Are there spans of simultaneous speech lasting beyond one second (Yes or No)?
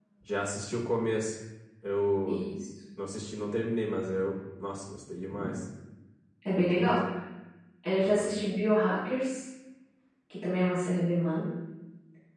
No